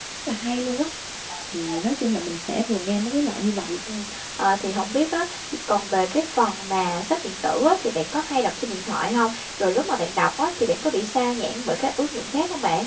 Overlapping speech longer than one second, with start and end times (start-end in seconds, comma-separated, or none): none